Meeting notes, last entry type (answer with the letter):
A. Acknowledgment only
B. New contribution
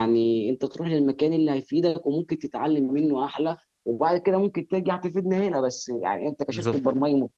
A